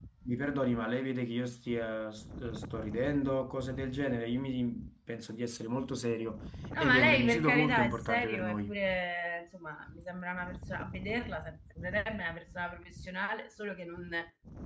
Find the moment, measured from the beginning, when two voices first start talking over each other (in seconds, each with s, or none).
6.8 s